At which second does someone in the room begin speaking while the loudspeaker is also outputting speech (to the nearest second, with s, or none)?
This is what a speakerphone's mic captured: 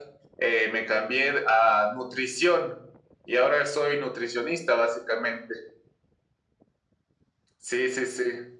none